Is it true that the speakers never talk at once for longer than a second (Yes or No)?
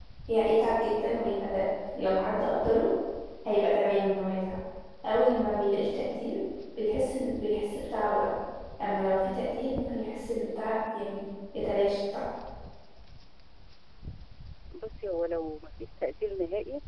Yes